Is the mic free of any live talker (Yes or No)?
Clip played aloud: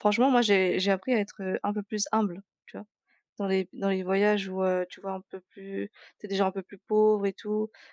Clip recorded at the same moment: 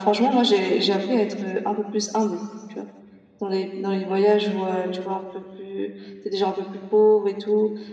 Yes